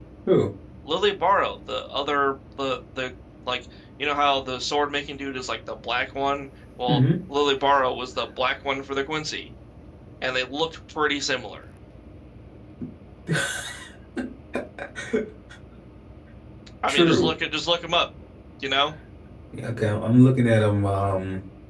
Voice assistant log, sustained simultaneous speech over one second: none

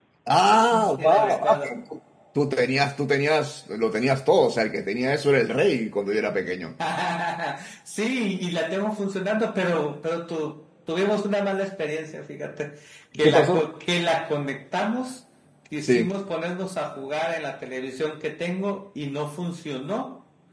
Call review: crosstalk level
present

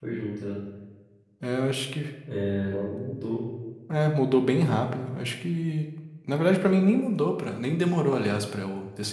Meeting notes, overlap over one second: none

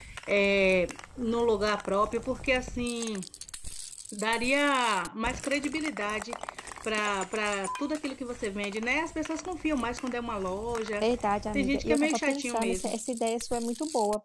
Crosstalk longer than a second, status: present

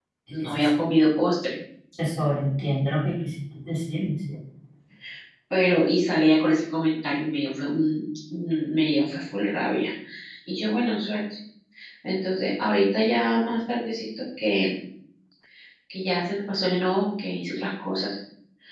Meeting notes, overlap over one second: none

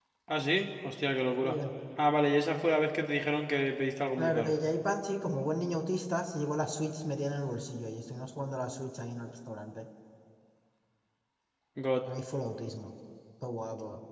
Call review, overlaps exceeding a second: none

